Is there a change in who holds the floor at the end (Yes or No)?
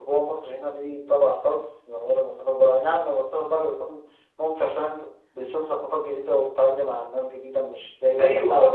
Yes